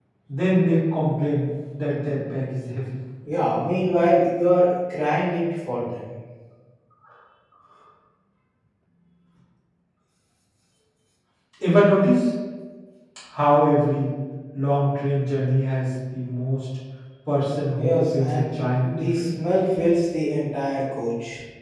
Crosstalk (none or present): present